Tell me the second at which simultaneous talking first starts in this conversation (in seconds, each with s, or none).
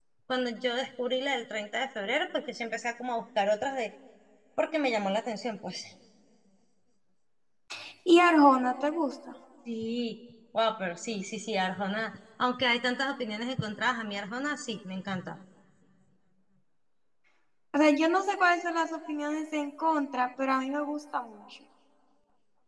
none